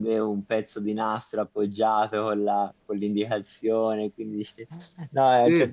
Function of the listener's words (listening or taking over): listening